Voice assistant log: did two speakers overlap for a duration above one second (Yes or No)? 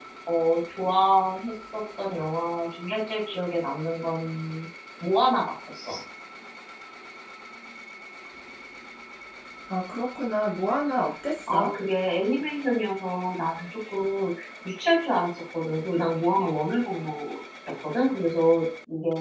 No